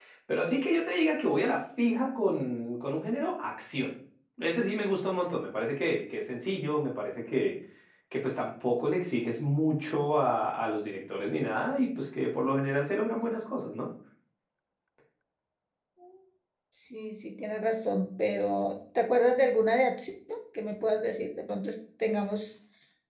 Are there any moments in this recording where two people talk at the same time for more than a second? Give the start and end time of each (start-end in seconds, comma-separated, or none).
none